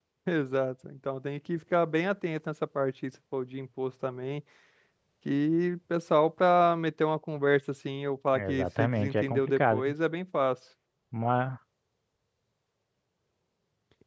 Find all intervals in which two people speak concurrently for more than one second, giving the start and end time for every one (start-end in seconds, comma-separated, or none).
8.3-9.8